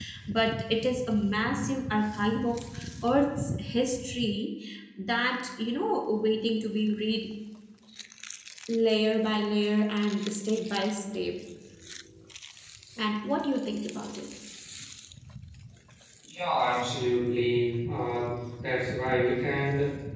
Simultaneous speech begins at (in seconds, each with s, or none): none